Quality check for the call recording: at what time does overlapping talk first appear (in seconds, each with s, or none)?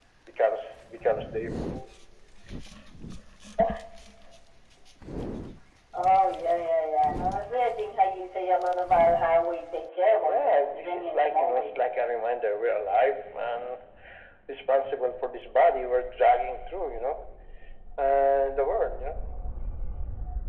10.2 s